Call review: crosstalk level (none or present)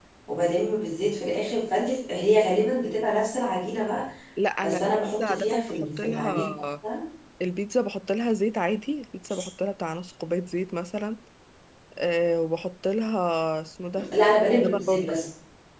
present